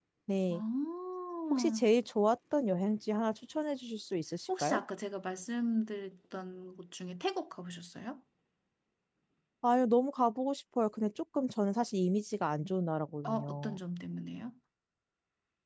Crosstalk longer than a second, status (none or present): none